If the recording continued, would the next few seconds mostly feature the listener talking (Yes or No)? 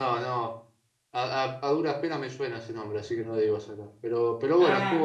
No